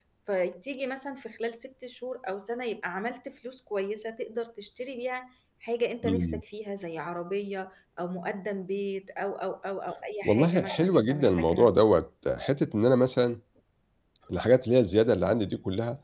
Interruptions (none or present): present